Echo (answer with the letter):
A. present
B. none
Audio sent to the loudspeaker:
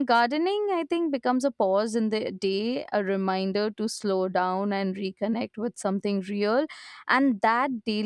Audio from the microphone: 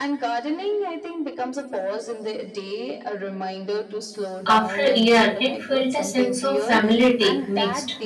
A